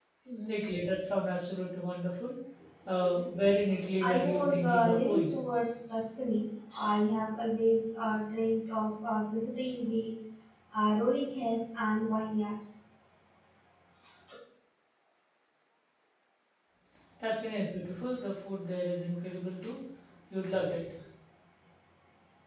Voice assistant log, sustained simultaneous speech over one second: present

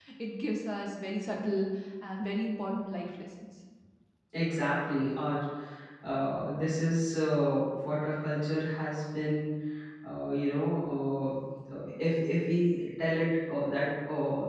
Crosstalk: none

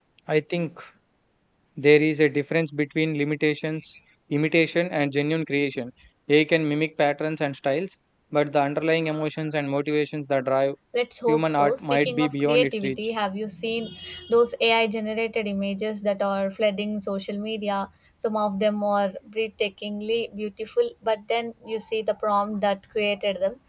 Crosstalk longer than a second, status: present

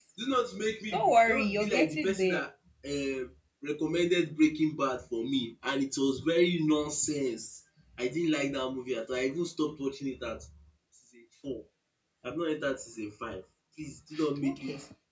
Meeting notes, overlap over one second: present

